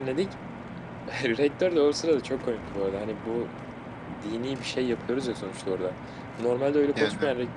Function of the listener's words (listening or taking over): listening